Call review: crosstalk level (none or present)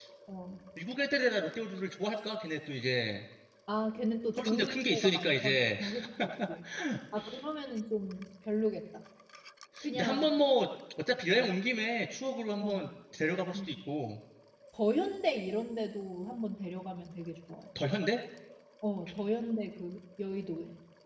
present